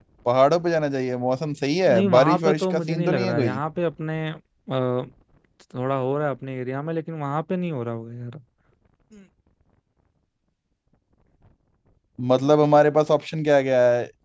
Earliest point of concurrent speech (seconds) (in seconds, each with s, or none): 1.9 s